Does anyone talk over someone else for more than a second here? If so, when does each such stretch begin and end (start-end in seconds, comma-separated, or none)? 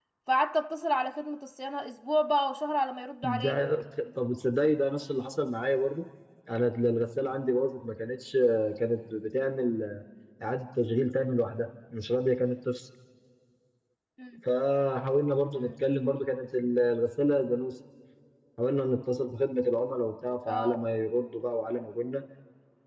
none